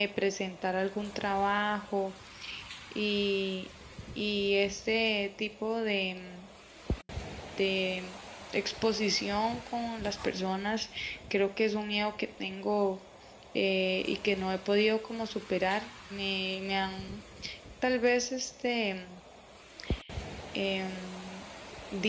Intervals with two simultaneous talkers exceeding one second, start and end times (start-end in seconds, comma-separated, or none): none